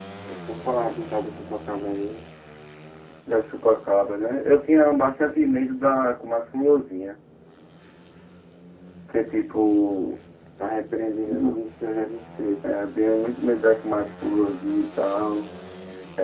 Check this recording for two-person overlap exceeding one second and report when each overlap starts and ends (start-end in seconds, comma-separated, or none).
none